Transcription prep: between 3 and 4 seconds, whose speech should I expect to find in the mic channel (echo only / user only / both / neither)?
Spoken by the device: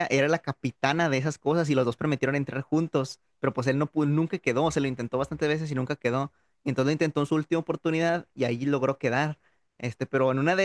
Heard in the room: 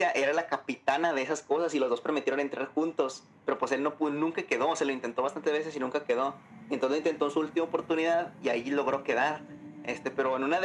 echo only